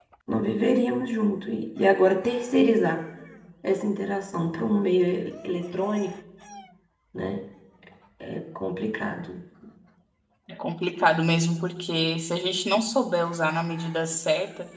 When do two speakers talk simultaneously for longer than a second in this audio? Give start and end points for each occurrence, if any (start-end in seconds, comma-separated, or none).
none